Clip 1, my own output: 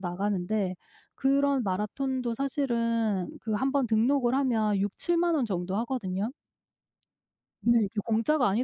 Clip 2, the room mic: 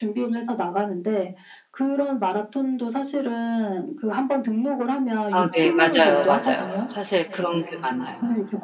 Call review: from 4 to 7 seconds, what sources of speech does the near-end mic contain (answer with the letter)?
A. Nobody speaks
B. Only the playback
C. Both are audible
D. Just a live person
C